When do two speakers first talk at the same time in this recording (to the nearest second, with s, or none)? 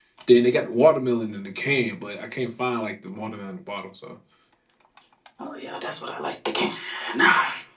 none